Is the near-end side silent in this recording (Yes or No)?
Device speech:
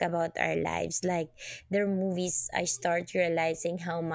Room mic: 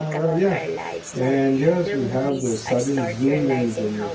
No